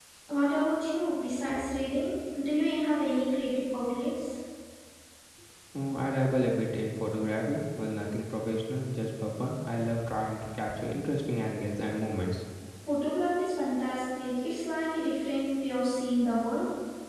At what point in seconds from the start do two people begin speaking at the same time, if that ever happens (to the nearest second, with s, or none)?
none